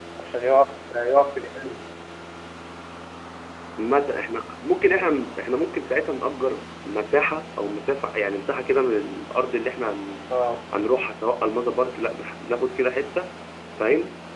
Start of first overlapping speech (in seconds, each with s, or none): none